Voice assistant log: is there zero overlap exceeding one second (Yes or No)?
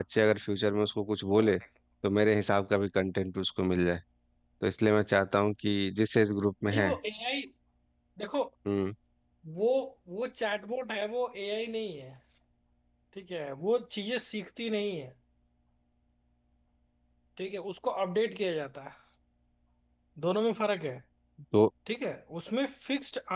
Yes